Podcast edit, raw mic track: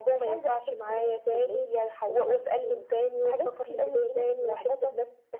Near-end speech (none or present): none